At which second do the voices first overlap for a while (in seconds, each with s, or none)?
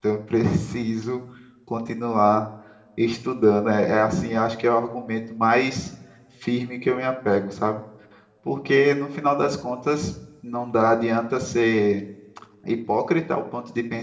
none